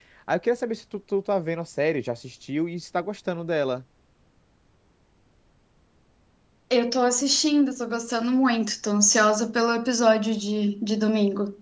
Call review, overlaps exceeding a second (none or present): none